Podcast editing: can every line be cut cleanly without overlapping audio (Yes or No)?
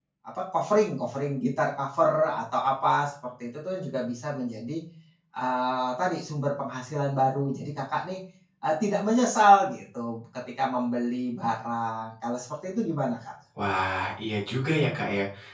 Yes